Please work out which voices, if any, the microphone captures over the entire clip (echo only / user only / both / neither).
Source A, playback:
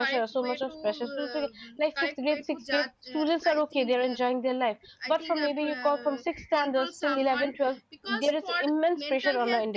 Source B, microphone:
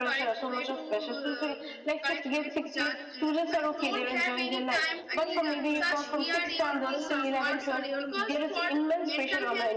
both